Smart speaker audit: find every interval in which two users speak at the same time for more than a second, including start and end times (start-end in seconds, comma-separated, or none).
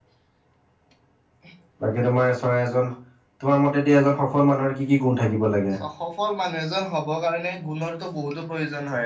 none